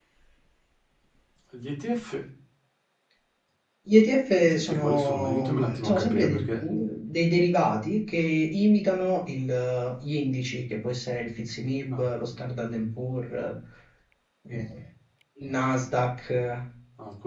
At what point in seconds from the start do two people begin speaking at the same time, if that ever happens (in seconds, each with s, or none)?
4.5 s